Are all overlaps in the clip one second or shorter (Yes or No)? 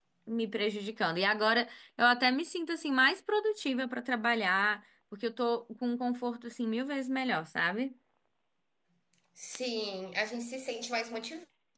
Yes